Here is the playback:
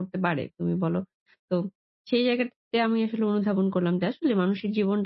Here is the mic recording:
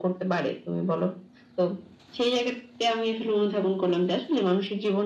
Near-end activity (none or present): none